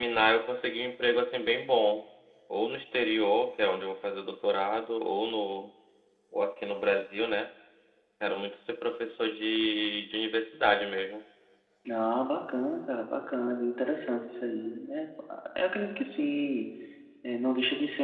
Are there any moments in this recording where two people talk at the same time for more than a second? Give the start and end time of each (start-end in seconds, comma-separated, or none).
none